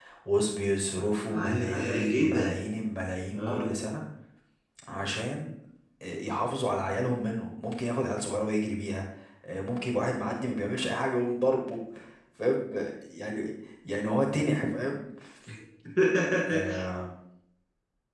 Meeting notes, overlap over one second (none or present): present